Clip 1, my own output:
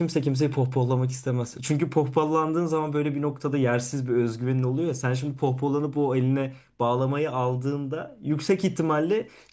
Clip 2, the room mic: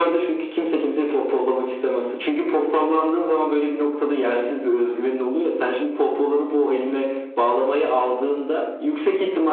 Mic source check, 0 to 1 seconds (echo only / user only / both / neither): echo only